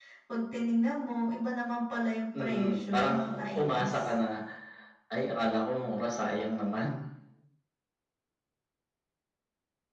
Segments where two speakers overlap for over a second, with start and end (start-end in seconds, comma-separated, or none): 2.4-3.9